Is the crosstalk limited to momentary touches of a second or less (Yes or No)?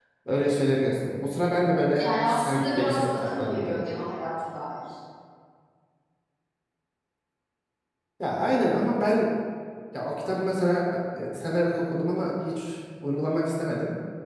No